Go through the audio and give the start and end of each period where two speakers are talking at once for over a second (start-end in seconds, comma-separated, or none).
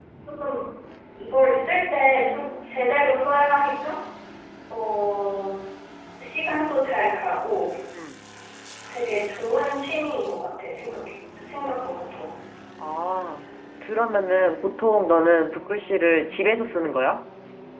none